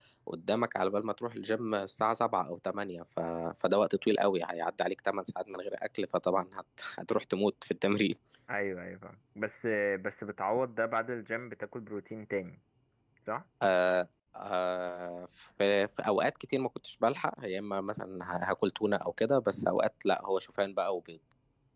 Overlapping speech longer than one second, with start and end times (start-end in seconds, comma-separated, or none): none